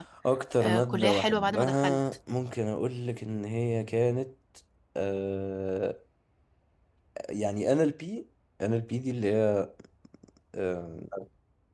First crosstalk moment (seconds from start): 0.6 s

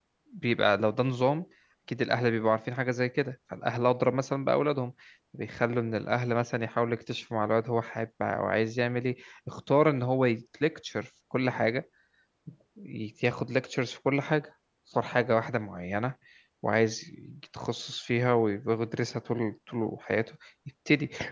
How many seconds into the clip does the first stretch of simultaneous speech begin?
none

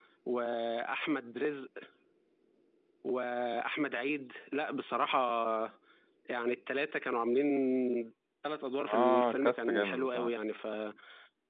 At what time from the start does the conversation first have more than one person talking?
8.8 s

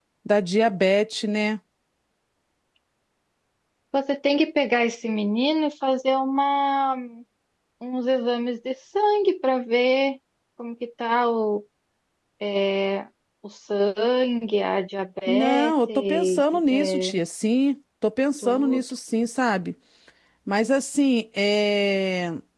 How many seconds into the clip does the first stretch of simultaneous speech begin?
15.3 s

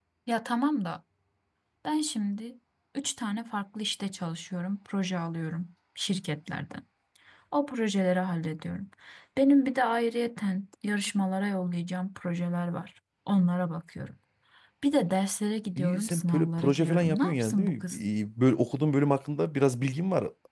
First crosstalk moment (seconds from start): 15.8 s

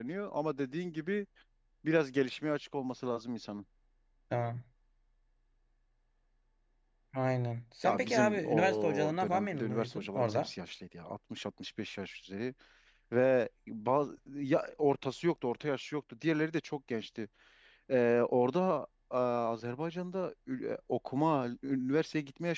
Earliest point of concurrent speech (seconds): 7.8 s

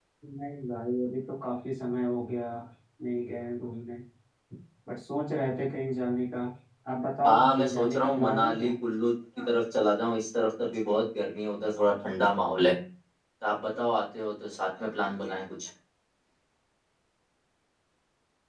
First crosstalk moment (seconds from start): 7.2 s

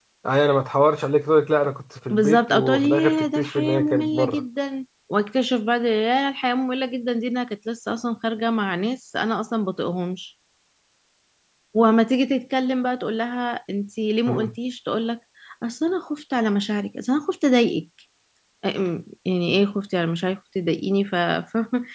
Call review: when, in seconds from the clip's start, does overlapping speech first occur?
2.1 s

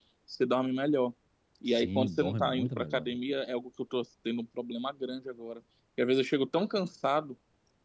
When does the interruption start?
1.7 s

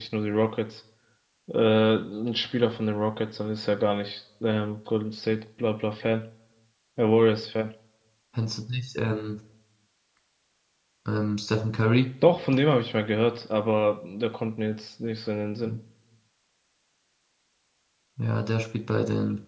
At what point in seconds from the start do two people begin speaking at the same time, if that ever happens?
none

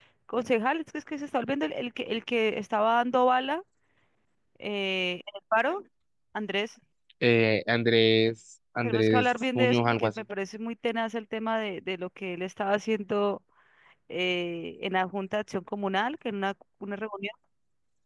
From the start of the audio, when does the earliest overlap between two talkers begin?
8.8 s

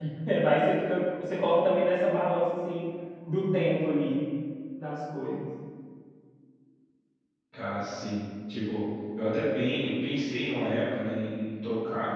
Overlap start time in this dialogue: none

